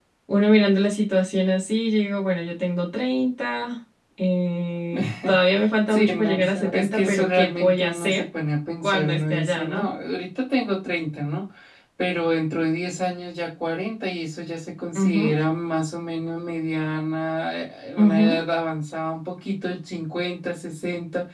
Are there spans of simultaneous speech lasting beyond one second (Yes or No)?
Yes